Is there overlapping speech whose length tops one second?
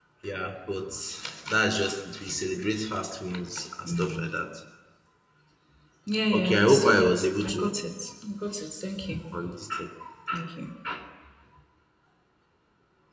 Yes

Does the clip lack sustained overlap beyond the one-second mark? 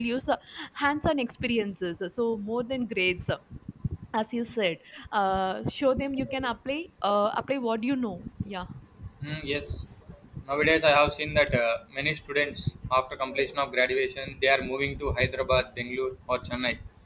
Yes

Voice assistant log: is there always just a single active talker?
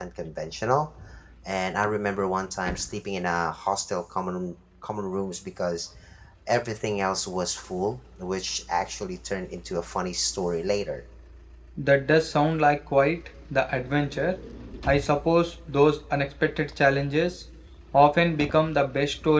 Yes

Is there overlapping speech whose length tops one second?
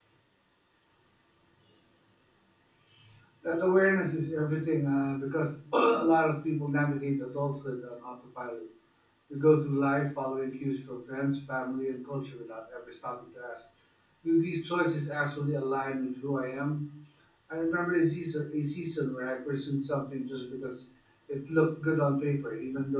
No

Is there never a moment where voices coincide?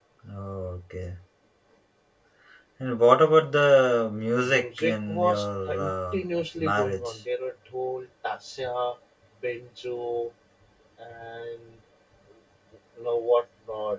No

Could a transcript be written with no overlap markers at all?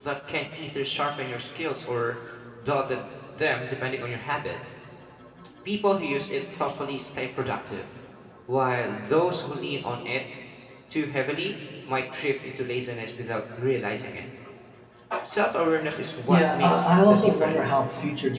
No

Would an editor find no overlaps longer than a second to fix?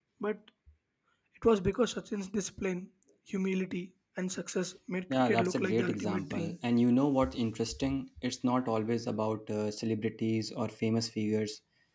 No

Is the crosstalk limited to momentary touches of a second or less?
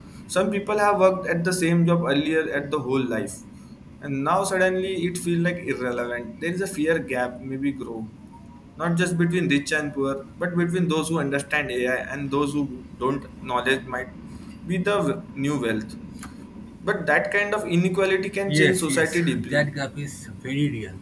No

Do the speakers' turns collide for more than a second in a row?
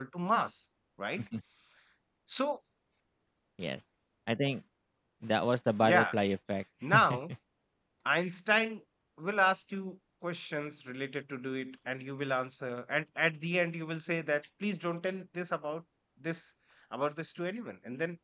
No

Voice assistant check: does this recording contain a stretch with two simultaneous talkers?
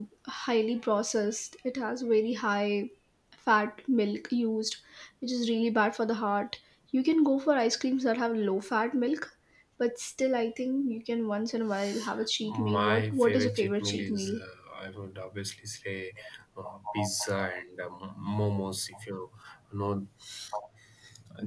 Yes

